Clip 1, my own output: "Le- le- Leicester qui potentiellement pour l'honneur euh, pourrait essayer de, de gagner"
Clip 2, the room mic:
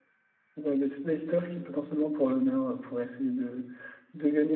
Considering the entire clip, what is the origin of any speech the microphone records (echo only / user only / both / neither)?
echo only